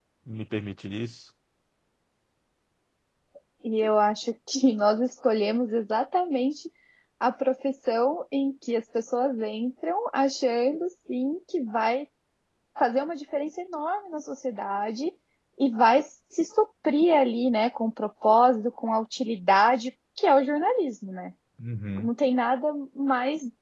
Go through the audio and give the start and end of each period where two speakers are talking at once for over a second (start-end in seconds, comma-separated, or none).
none